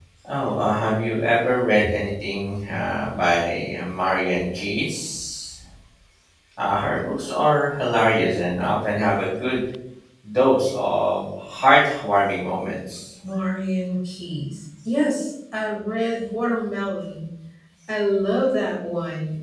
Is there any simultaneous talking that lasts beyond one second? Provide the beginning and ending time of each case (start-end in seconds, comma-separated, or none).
none